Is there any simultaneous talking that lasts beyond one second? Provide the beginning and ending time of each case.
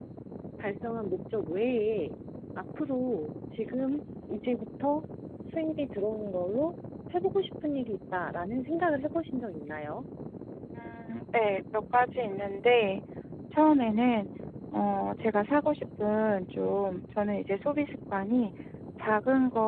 none

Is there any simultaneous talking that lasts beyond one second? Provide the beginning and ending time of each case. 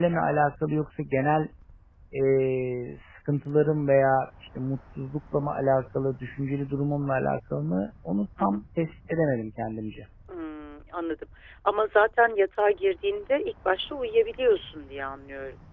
none

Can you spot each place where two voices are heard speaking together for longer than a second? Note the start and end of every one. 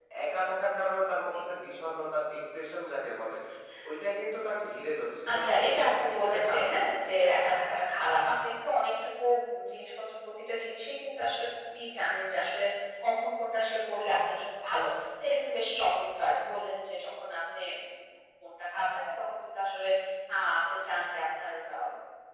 5.3-6.7

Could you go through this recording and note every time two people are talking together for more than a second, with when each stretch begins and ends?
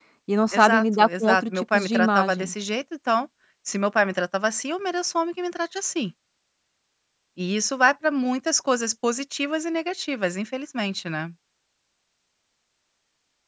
0.5-2.5

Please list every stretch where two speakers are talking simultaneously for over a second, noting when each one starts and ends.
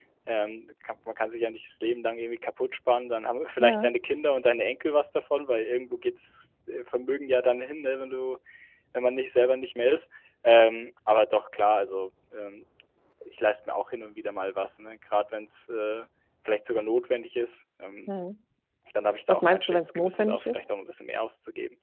19.3-20.6

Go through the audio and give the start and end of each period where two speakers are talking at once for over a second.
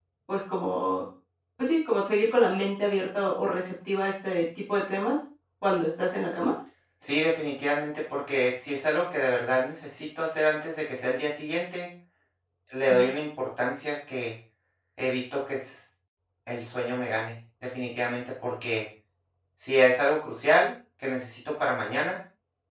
none

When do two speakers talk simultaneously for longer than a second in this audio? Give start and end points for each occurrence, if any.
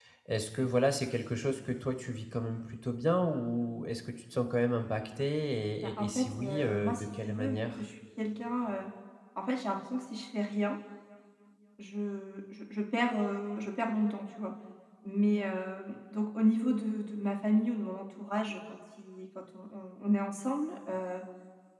5.8-7.7

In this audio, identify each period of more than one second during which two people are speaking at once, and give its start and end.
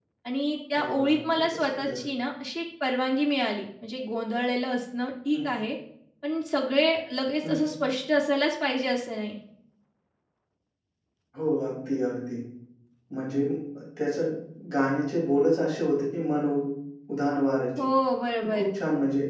0.8-2.0

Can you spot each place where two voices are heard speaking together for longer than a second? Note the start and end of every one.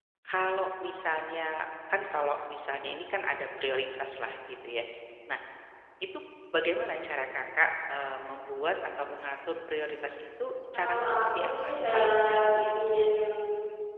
10.7-12.9

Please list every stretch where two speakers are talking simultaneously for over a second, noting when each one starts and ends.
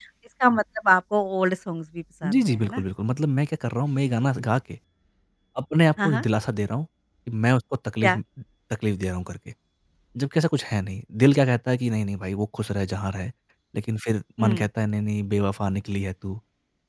none

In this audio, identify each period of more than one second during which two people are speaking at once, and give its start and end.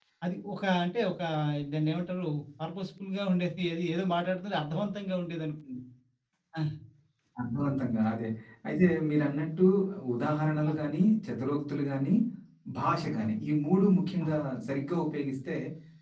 none

